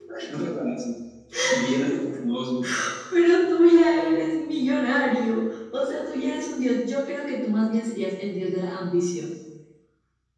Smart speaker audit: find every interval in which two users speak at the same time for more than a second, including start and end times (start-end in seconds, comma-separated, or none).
none